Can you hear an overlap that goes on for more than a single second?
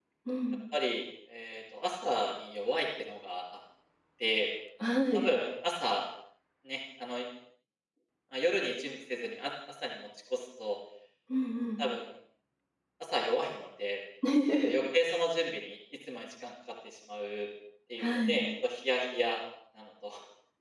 No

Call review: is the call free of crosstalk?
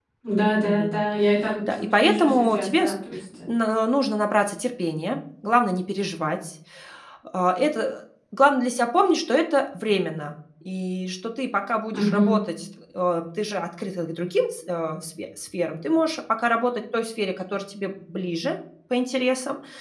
No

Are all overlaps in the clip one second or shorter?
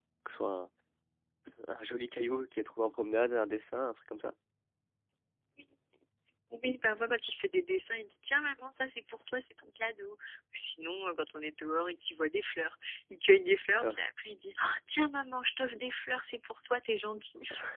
Yes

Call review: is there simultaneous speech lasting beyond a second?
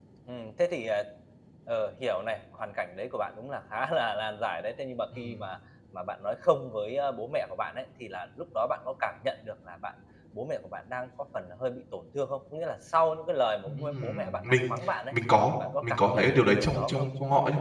Yes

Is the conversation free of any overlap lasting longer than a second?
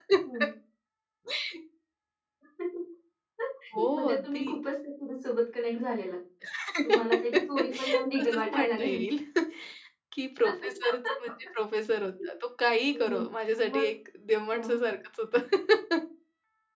No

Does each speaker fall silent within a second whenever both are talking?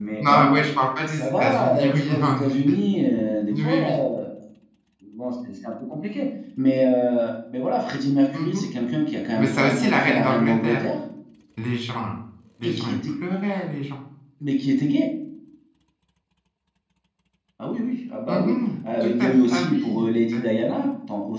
No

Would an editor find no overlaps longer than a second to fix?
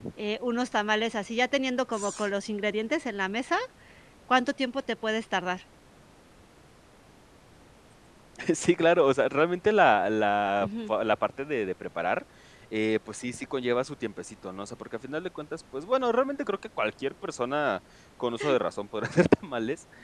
Yes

